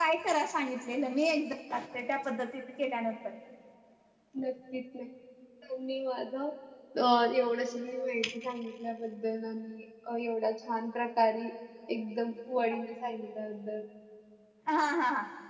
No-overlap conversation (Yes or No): Yes